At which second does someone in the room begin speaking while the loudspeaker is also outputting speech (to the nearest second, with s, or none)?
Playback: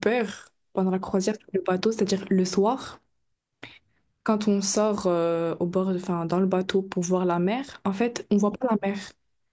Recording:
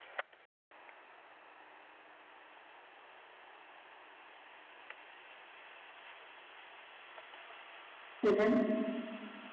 8 s